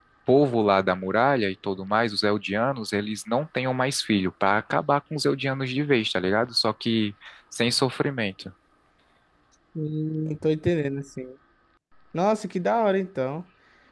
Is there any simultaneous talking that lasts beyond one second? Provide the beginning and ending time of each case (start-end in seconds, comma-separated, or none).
none